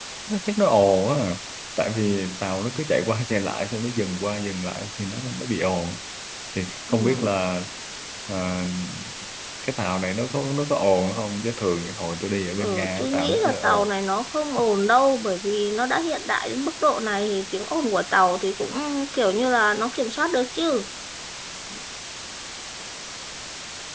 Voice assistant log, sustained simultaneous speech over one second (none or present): present